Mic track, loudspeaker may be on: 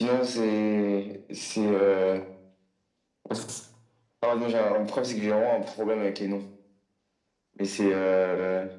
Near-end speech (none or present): none